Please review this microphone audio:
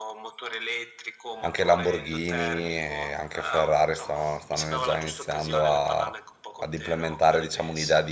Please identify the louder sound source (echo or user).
user